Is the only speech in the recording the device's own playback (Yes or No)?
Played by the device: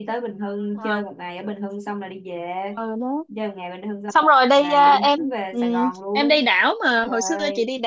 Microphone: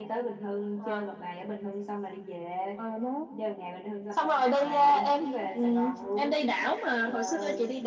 Yes